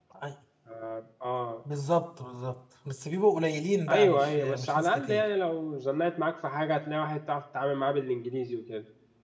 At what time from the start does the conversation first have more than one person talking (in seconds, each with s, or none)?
3.9 s